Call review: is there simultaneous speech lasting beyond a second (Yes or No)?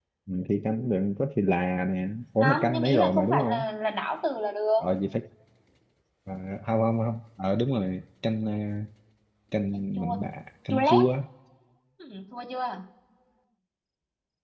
Yes